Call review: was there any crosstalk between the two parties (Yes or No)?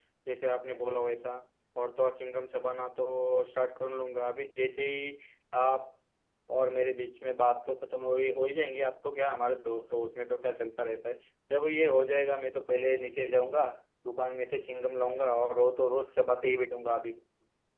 No